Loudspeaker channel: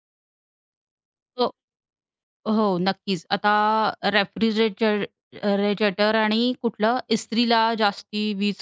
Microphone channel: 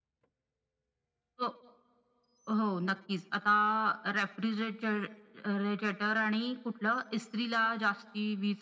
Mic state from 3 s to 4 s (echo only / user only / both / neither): echo only